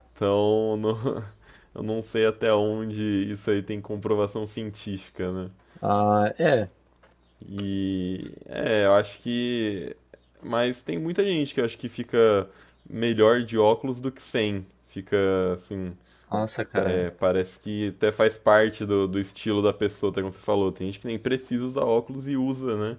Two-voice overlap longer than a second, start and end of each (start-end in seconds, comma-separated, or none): none